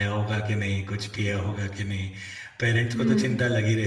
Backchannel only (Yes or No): Yes